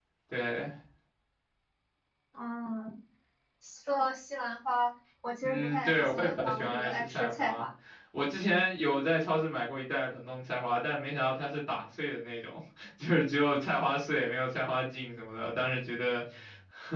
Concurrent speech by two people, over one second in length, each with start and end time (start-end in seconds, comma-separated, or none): 5.5-7.7